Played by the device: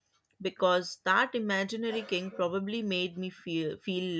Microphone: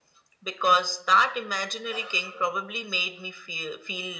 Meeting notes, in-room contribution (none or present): none